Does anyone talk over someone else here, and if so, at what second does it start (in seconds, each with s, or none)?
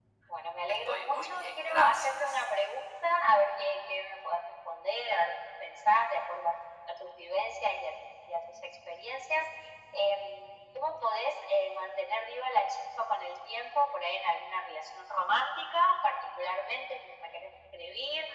0.7 s